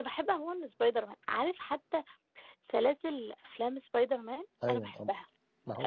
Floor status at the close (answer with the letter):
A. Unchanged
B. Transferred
B